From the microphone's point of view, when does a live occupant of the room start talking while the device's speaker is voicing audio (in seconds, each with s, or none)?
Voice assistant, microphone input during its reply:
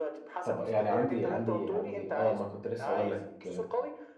0.4 s